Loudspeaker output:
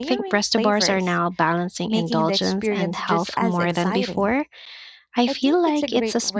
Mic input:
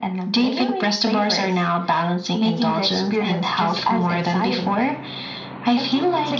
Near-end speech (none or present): none